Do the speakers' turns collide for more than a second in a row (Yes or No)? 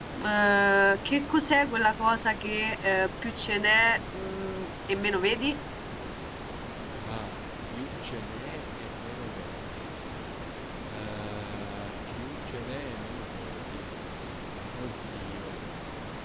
No